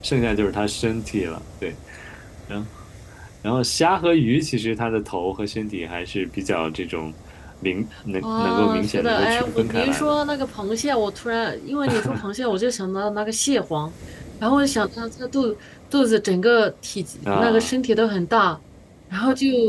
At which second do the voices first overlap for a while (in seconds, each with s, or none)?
8.2 s